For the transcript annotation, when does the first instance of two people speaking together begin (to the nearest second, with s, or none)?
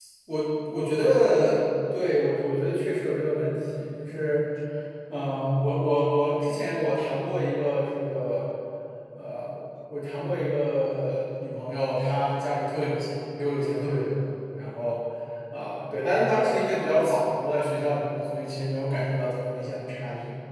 none